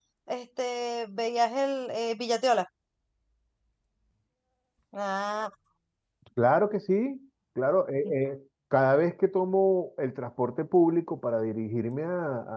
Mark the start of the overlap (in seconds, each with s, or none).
none